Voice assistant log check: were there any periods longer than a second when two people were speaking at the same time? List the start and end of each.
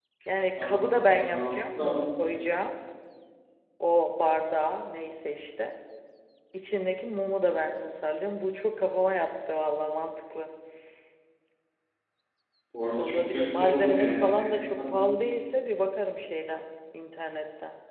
0.6-2.4, 13.0-15.1

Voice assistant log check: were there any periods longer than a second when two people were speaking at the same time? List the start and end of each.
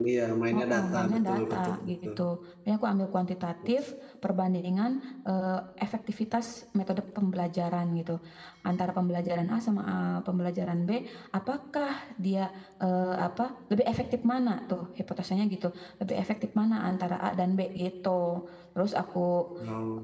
0.5-2.1

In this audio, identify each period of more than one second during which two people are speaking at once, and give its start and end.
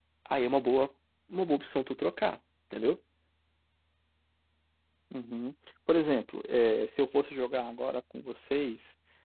none

